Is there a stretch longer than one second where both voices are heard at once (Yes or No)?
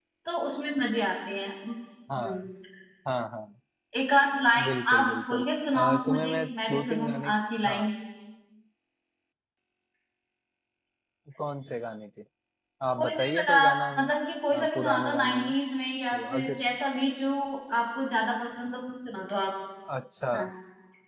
Yes